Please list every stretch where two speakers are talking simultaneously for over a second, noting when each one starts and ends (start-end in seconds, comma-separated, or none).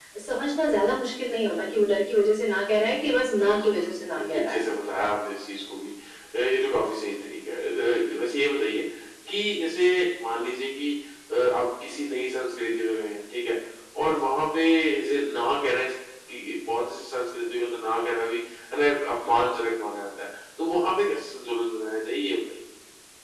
3.4-4.6